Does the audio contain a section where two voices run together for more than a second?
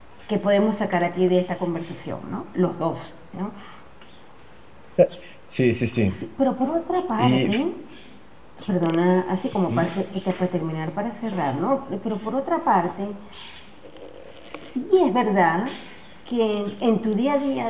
No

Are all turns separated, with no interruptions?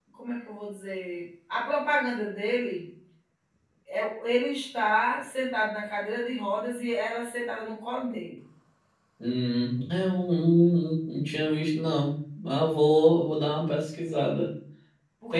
Yes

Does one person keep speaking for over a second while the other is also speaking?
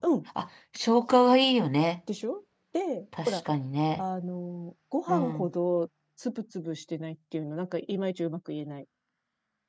No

